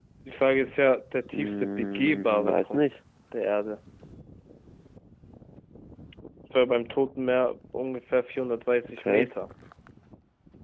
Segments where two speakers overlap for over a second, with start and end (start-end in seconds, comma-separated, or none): 1.3-2.8